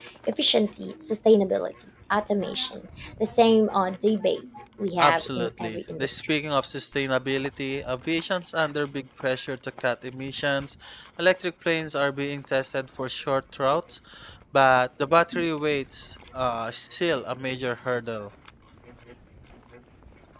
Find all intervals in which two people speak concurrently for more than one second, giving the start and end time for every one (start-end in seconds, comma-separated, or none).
5.0-6.2